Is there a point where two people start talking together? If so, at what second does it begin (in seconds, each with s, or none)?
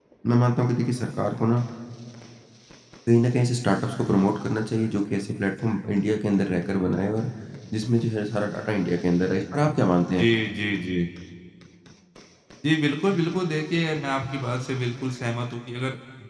none